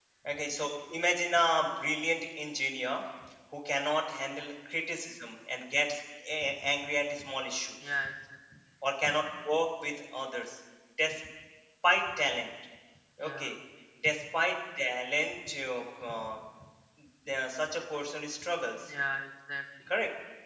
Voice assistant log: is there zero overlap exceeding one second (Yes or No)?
Yes